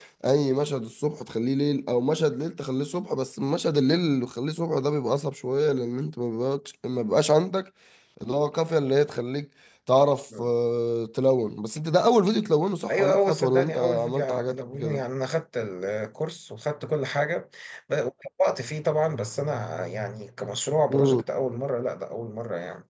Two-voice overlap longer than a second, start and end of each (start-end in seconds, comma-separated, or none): 12.9-15.0